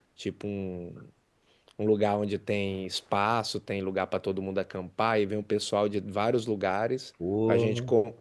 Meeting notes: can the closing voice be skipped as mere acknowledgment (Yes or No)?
Yes